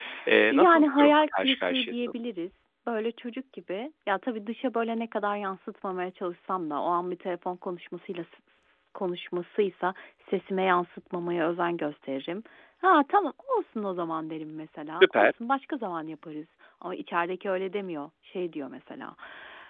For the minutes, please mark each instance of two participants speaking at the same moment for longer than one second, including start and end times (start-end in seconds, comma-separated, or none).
0.5-2.1